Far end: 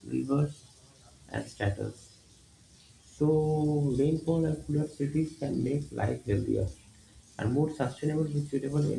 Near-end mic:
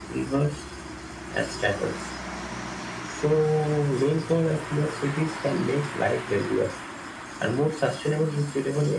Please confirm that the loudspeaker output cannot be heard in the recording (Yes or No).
No